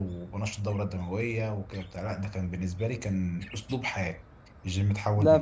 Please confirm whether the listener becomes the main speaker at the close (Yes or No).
No